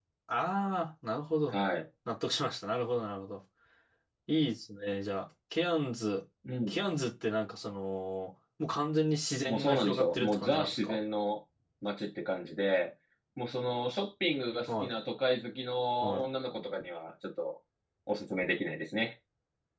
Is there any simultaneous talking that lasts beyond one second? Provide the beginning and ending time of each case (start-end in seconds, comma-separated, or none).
9.4-11.0